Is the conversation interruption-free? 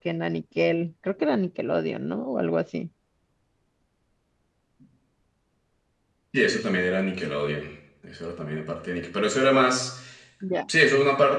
Yes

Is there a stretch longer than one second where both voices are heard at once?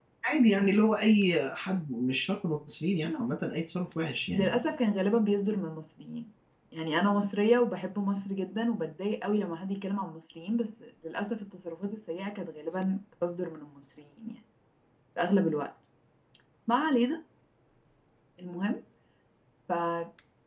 No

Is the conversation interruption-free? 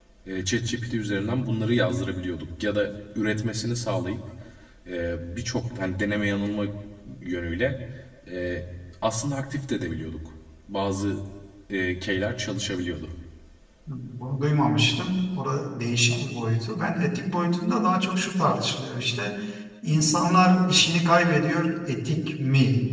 Yes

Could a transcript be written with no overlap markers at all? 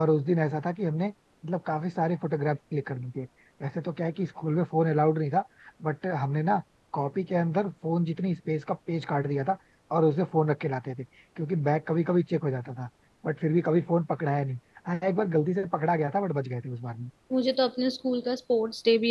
Yes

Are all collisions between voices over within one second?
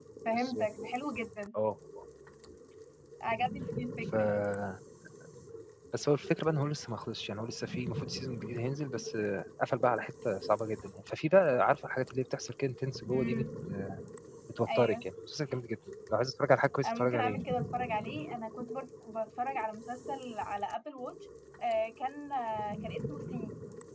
Yes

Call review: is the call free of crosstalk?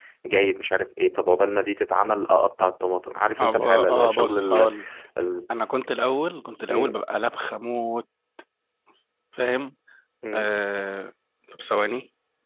No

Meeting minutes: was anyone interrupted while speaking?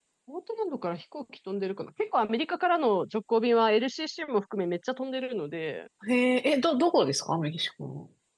No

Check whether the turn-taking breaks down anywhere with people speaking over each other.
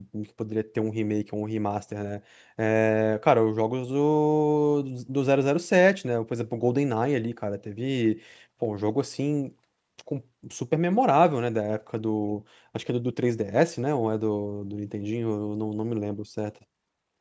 No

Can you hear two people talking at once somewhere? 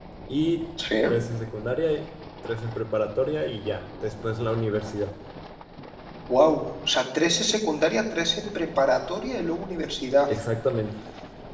No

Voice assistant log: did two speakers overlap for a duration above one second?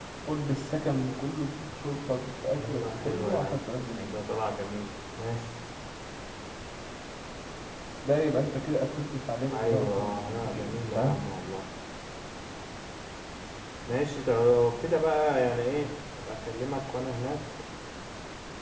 Yes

